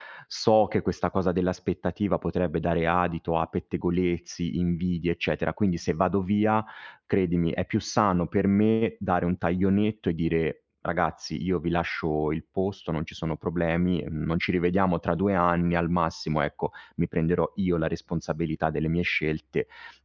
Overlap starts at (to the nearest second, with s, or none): none